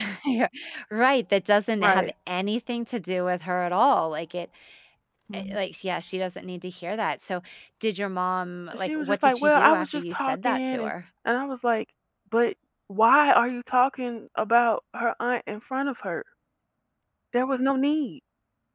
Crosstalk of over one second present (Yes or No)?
Yes